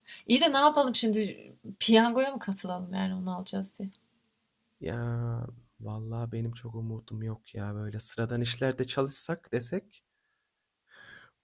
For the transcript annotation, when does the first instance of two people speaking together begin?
none

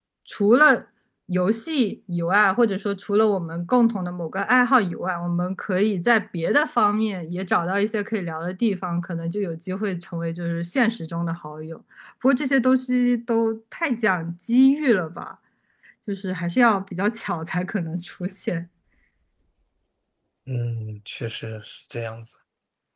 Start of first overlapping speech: none

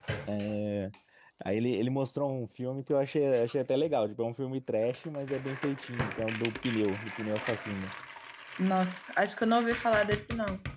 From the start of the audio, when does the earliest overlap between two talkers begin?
none

